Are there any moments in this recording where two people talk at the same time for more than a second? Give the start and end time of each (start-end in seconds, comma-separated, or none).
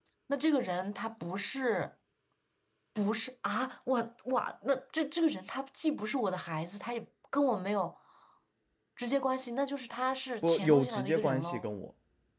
10.4-11.7